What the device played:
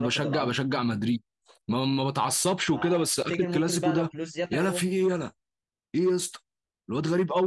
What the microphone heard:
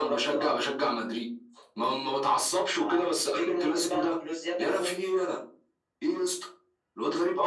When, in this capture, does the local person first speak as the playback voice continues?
none

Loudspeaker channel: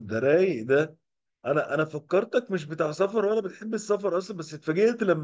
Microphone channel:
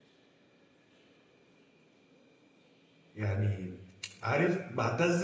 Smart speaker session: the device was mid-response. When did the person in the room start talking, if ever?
3.1 s

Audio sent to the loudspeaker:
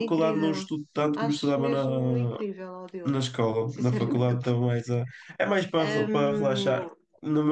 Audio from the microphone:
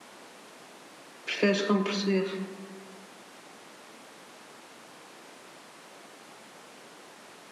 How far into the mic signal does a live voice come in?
1.2 s

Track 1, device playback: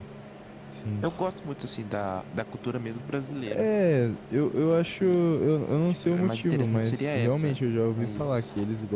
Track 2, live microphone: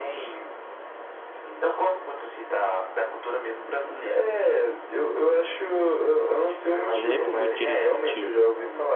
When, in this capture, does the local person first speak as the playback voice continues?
6.9 s

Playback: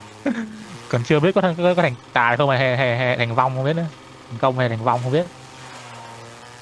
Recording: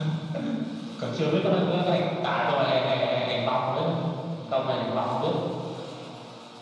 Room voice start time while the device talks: none

